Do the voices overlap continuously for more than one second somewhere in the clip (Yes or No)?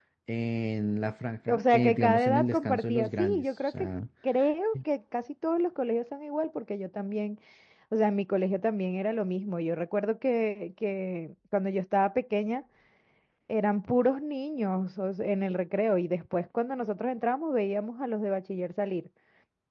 Yes